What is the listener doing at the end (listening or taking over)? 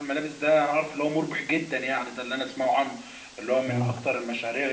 listening